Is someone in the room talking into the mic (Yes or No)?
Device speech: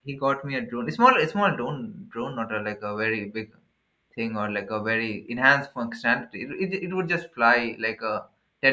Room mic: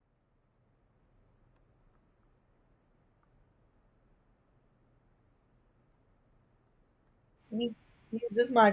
Yes